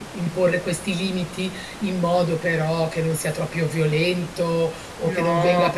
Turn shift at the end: No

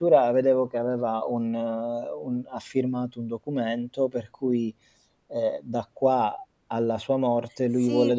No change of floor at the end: No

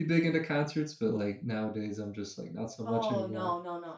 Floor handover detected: Yes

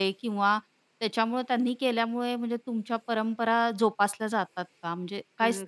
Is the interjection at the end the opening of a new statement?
Yes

